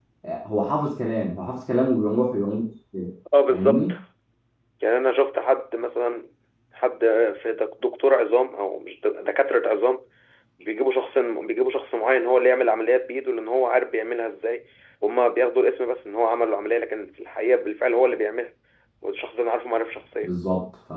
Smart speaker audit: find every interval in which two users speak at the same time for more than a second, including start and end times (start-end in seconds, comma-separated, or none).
none